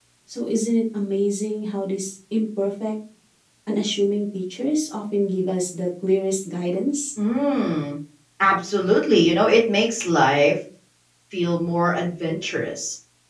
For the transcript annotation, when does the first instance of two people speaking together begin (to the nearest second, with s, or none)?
none